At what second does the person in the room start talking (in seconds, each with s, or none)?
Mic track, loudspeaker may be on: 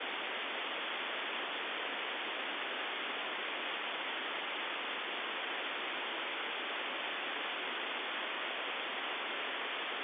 none